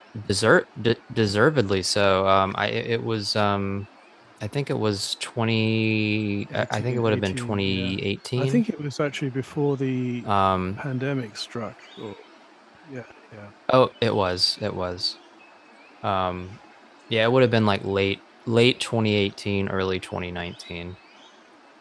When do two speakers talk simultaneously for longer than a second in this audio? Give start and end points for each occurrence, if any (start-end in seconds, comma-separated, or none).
6.5-8.0